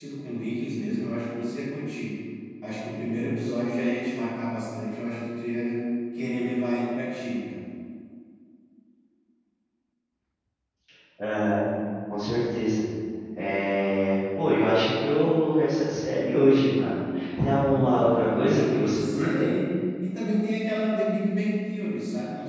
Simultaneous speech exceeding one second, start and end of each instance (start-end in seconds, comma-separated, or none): 17.7-19.5